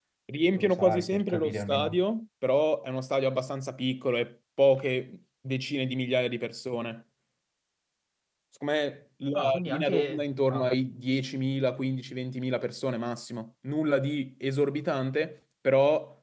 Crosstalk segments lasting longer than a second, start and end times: 0.6-2.0, 9.3-10.7

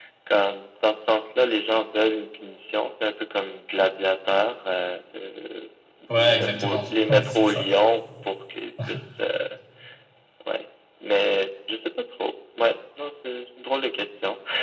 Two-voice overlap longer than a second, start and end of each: 6.2-7.6

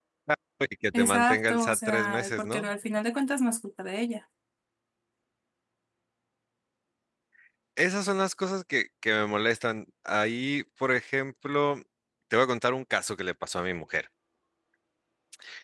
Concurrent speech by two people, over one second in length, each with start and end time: 0.9-2.7

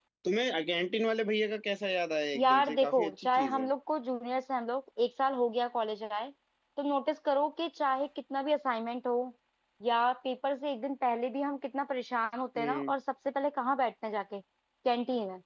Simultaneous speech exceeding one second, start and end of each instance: 2.4-3.7

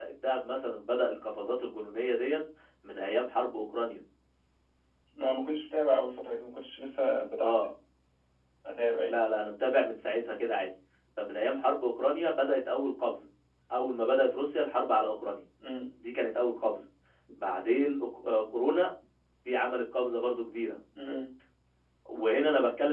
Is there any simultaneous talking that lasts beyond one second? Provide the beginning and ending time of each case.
none

